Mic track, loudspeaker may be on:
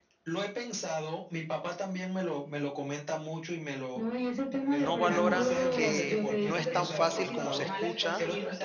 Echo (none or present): present